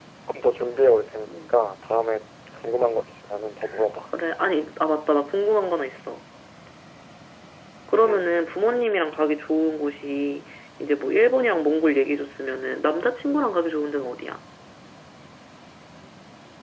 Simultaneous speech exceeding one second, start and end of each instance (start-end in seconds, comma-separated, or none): none